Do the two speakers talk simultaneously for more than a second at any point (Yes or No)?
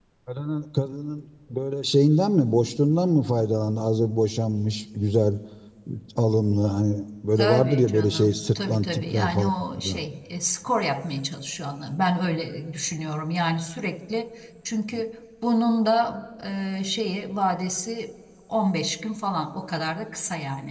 Yes